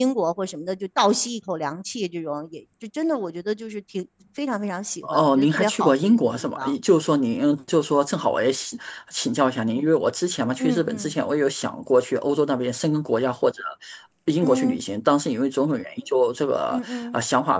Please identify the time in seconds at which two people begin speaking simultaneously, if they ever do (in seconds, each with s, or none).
5.0 s